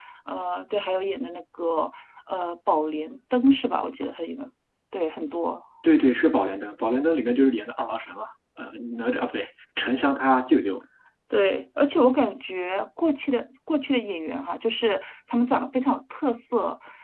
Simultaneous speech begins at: none

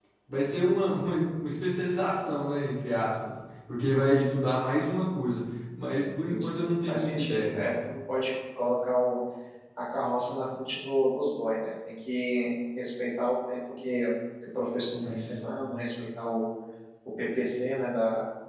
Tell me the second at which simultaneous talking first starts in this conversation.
6.3 s

